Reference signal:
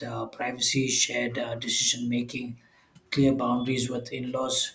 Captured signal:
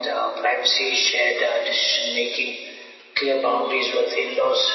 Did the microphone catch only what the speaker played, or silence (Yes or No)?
Yes